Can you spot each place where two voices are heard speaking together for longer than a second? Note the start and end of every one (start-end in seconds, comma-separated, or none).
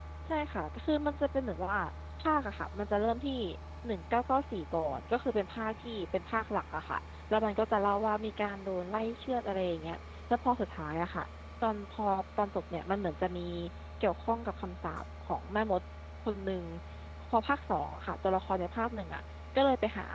none